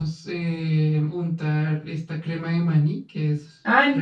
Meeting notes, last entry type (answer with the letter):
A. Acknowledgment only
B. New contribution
B